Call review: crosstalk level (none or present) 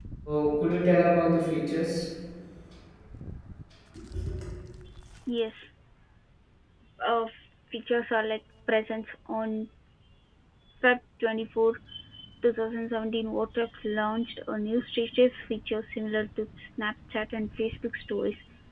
none